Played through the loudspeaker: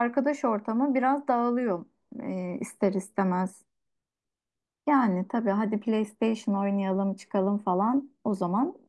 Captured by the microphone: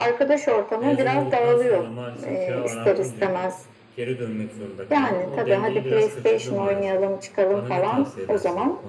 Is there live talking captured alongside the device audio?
Yes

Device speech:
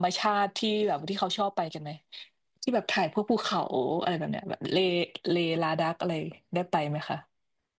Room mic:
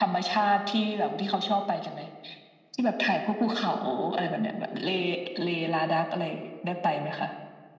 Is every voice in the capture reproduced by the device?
Yes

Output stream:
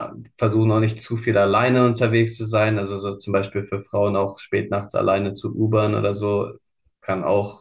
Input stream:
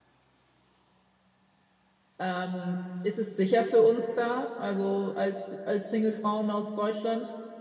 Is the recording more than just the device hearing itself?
Yes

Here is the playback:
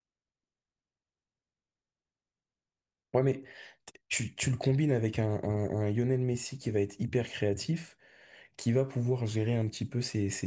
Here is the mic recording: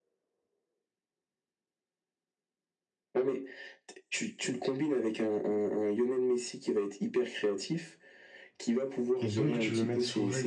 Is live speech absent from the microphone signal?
No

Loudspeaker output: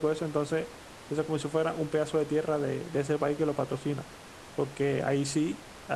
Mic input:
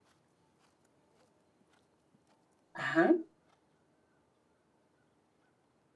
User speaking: Yes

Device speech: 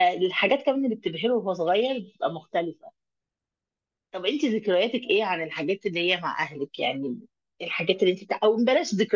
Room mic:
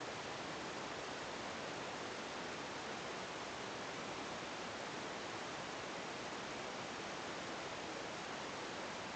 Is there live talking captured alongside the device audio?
No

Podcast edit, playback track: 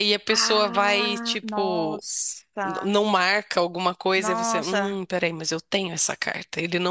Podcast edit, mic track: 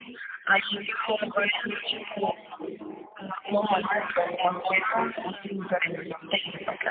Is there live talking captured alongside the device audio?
No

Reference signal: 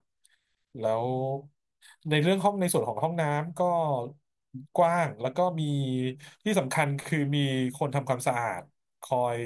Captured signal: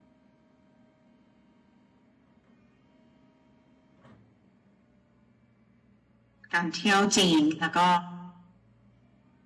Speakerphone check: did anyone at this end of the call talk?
Yes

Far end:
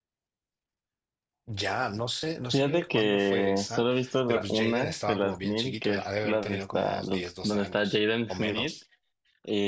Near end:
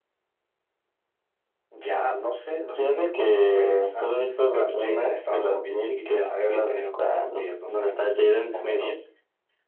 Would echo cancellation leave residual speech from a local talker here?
No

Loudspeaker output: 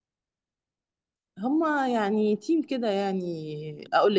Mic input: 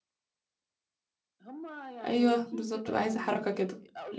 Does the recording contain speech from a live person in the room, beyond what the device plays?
Yes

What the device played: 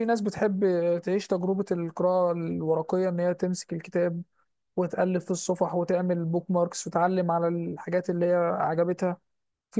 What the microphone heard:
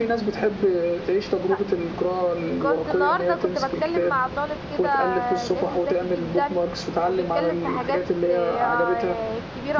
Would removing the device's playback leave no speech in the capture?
No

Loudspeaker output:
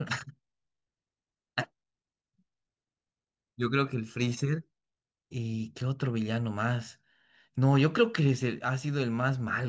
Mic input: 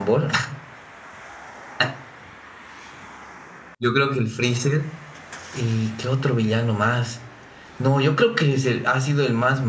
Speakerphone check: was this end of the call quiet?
Yes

